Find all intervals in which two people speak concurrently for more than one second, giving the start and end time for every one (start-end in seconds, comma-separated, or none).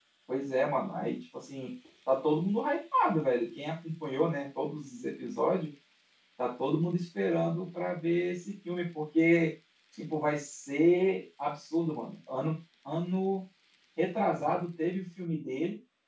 none